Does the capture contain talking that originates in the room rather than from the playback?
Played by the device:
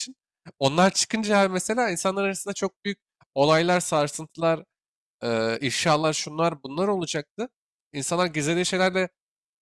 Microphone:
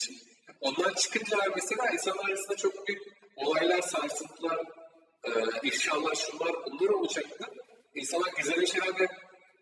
No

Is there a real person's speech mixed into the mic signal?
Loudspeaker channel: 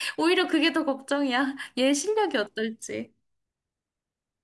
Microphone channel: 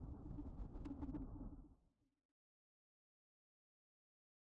No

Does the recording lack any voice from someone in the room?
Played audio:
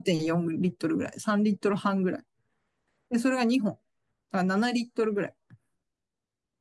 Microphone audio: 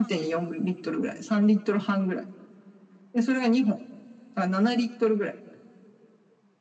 Yes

